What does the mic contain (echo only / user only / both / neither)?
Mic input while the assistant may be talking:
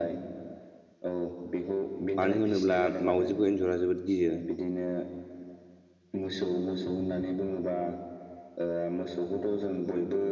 both